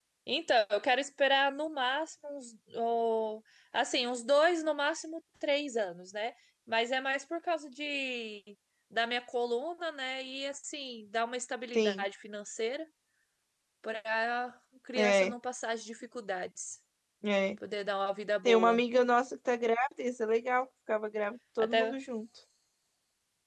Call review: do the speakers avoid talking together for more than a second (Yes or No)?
Yes